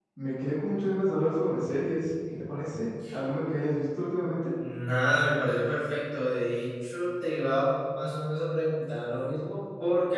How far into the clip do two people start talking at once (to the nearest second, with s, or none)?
none